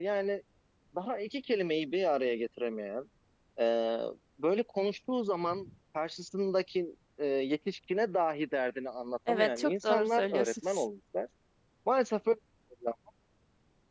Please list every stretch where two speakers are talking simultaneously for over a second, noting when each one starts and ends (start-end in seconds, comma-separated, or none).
9.3-10.8